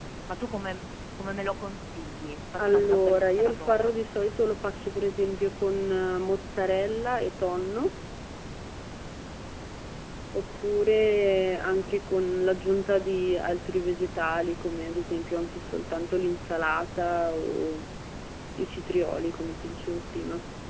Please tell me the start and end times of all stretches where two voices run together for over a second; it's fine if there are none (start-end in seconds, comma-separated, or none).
2.7-3.9